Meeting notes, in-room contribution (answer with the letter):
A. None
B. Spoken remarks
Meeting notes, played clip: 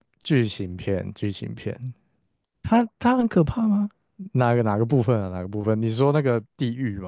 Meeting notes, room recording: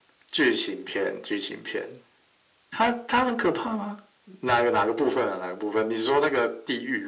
A